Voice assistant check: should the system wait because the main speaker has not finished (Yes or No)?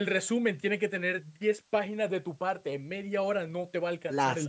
No